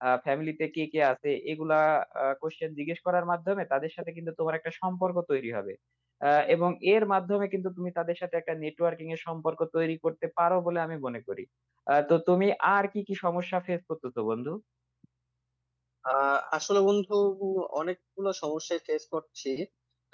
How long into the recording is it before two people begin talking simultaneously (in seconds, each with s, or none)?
none